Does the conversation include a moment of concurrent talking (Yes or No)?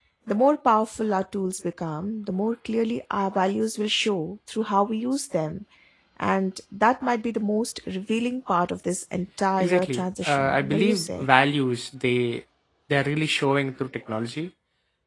Yes